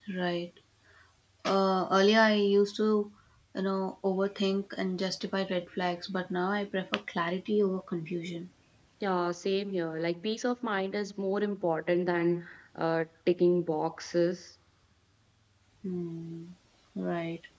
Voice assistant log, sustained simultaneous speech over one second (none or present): none